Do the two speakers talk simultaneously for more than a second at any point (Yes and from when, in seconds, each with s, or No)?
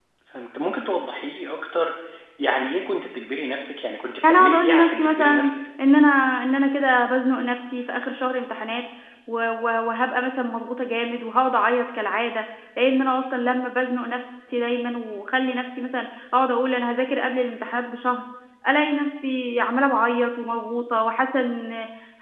Yes, from 4.2 s